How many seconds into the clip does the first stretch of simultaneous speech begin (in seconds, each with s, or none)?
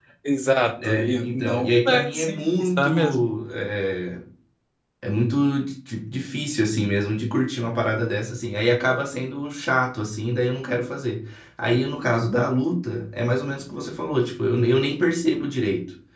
0.8 s